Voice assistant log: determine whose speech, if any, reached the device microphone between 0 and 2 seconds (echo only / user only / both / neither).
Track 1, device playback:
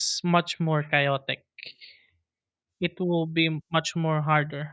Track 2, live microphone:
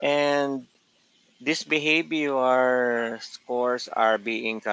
user only